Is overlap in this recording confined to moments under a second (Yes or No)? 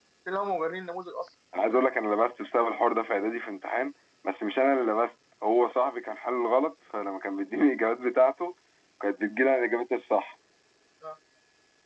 Yes